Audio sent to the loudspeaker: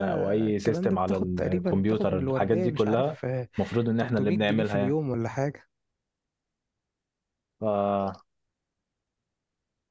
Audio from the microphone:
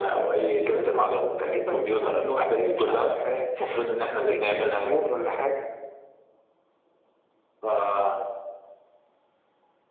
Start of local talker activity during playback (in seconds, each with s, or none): none